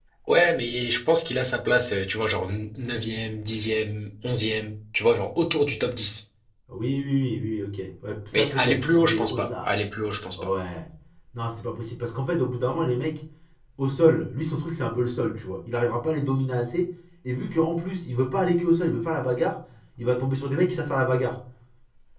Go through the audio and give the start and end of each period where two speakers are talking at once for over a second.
8.3-9.7

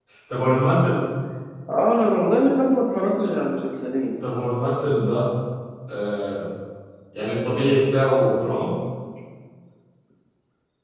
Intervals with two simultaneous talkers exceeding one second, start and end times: none

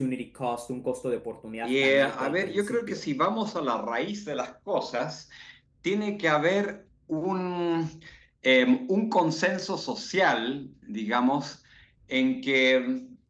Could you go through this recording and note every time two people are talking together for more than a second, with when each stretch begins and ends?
1.6-3.0

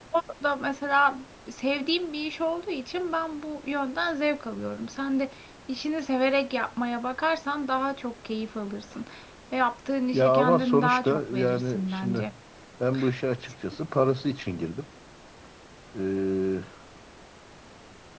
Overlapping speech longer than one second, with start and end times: 10.1-12.2

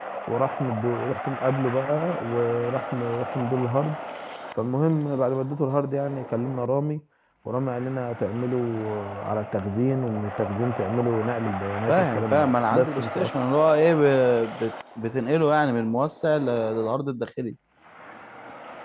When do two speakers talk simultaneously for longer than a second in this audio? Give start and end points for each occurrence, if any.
11.9-13.3

